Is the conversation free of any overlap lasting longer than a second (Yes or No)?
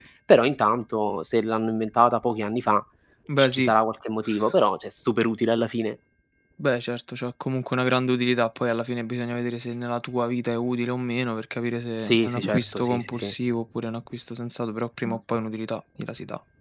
No